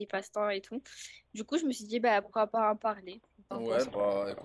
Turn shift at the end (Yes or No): Yes